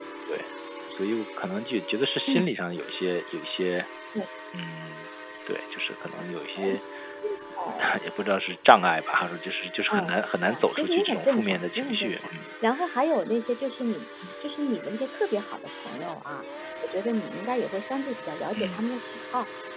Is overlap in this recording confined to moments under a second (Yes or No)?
No